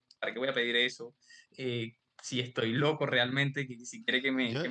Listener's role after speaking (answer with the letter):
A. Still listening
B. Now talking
B